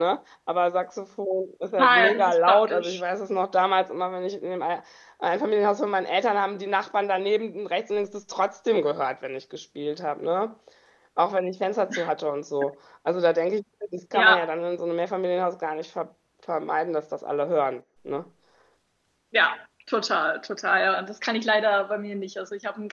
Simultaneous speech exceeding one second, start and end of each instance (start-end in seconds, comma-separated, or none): 1.8-3.0